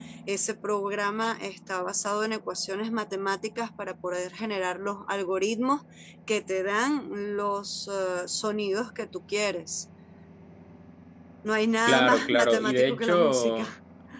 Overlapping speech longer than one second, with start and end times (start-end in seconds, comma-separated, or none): 11.9-13.7